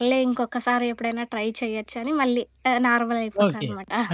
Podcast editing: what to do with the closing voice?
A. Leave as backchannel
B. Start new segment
B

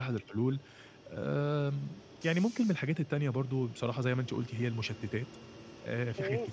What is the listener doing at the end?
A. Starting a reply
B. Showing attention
B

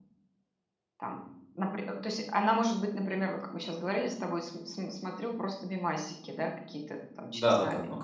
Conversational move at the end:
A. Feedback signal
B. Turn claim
B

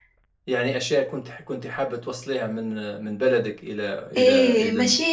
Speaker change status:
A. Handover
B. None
A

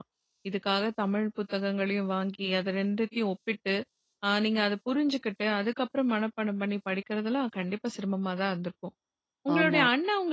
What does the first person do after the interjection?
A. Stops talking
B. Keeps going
B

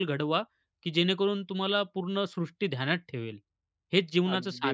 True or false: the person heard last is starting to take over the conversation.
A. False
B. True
B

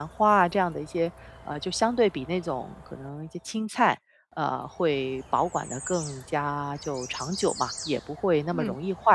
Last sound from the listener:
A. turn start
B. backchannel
B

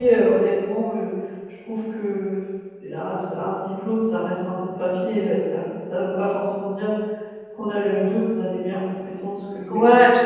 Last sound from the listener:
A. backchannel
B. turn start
B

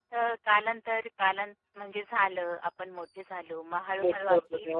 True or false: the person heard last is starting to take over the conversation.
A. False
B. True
B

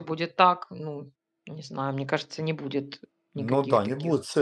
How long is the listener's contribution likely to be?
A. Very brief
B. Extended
B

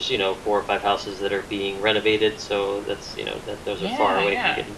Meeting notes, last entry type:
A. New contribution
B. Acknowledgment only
B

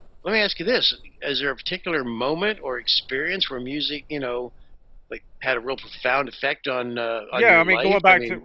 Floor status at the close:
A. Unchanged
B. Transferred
B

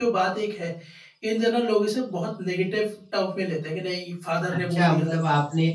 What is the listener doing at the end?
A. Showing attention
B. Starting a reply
B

